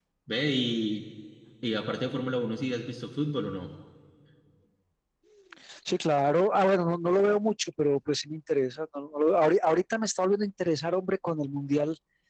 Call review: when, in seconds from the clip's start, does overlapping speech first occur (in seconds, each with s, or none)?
none